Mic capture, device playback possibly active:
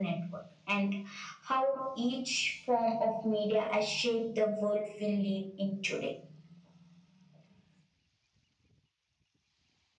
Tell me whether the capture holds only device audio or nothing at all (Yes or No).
Yes